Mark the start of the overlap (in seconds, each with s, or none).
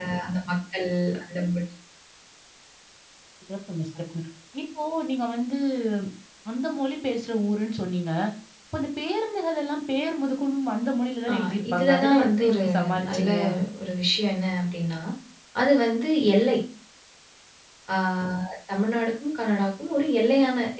11.3 s